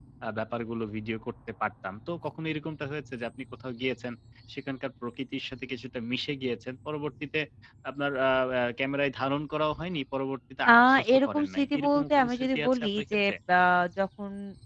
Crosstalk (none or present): present